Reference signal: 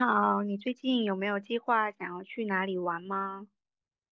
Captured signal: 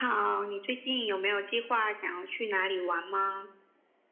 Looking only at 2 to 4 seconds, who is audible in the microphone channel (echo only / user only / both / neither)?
echo only